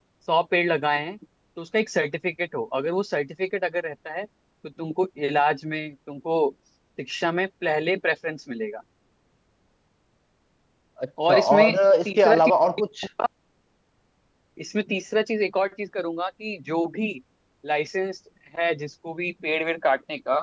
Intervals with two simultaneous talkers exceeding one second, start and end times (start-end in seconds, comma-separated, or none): 11.3-12.5